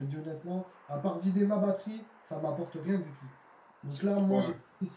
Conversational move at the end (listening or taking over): listening